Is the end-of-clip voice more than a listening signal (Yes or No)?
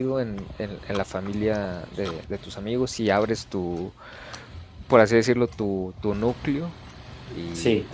No